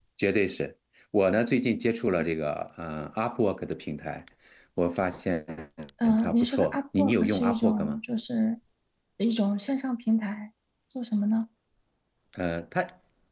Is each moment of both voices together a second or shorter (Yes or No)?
No